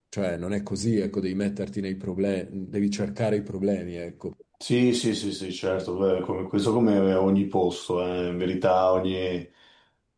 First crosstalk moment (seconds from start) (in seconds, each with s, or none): none